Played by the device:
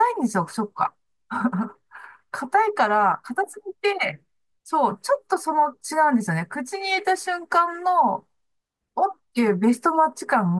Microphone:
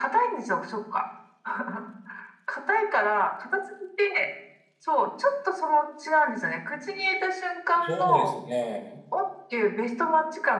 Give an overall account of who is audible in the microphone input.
both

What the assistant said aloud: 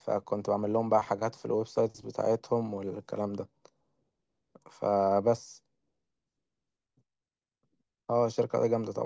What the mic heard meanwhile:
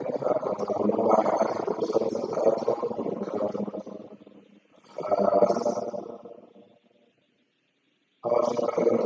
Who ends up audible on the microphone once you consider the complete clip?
echo only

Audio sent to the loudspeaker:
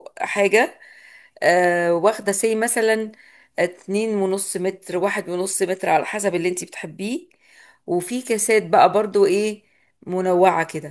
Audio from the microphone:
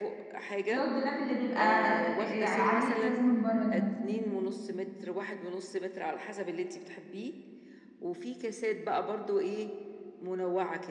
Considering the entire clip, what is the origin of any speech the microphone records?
both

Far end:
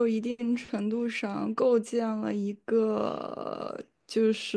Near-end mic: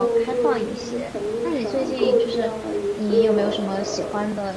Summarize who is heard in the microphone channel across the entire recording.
both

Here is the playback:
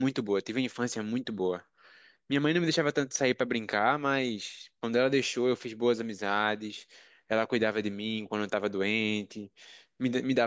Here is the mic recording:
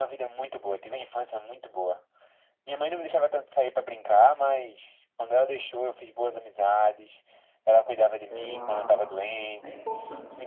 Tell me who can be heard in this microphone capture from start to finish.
both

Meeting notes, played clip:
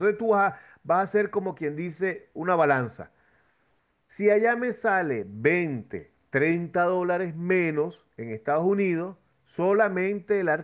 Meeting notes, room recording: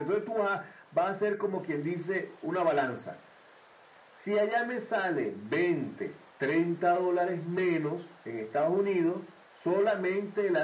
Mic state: echo only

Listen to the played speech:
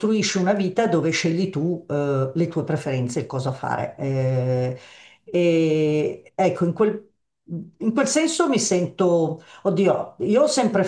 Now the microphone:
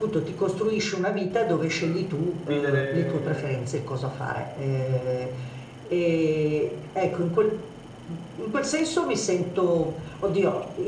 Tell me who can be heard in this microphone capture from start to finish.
both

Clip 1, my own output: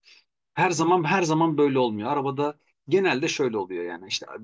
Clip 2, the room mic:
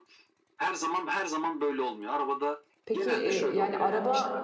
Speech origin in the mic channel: both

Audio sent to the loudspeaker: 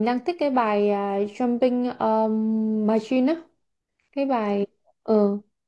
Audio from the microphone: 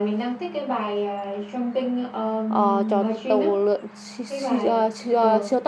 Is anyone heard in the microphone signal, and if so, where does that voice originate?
both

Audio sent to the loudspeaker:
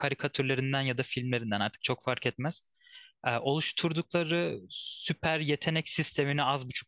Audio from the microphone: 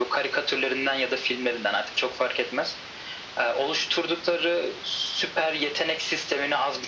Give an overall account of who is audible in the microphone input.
echo only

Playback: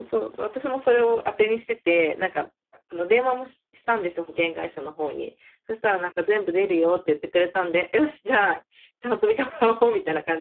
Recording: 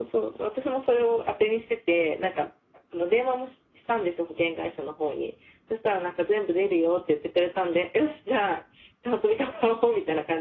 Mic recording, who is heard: echo only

